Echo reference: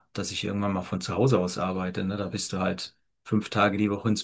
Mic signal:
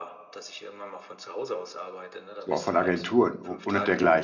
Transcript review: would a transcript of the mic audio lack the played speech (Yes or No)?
No